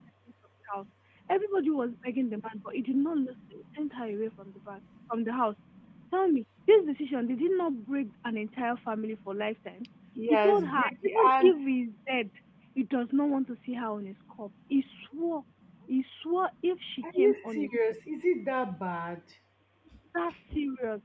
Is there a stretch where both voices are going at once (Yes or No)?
Yes